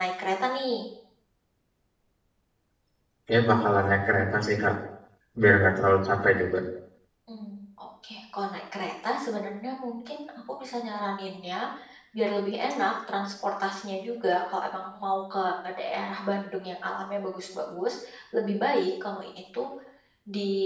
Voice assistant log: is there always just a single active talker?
Yes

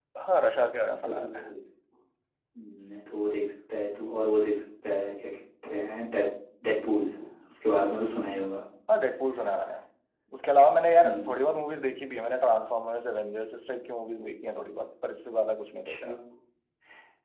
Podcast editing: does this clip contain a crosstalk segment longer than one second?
No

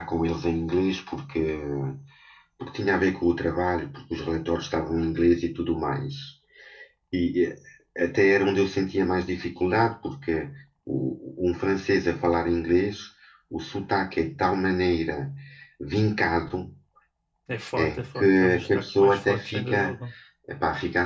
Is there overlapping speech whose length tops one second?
Yes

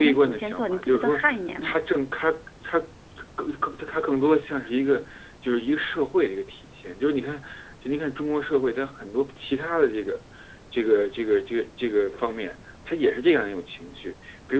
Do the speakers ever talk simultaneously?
Yes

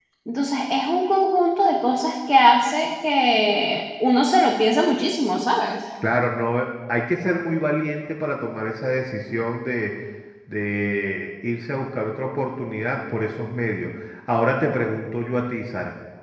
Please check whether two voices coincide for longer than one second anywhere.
No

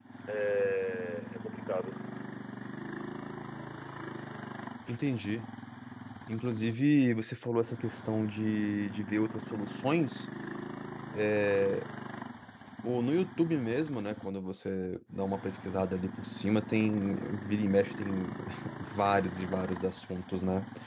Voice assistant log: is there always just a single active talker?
Yes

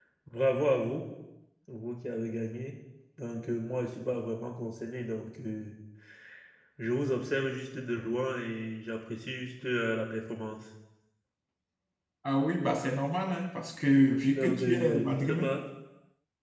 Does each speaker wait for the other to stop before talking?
No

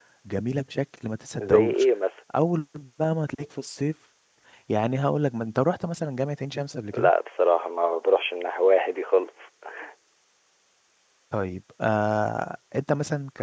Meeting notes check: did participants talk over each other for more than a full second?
No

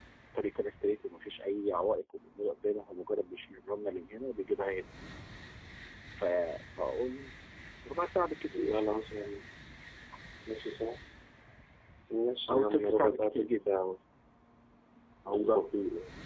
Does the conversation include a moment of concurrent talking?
Yes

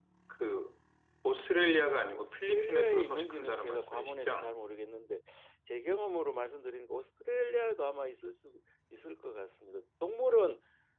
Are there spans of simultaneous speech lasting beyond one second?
Yes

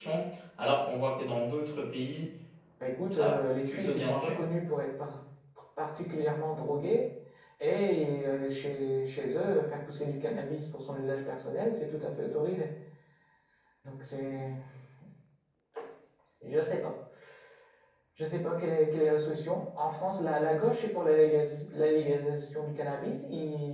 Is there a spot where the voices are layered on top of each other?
Yes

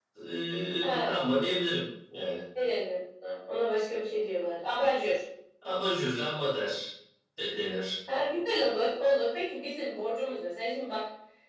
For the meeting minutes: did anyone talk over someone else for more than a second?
No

